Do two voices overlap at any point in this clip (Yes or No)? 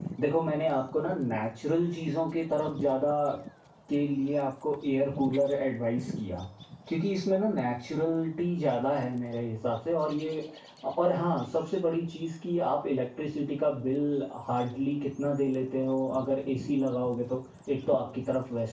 No